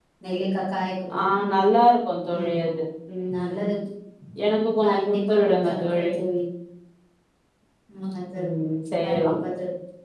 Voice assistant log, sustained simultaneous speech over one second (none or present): present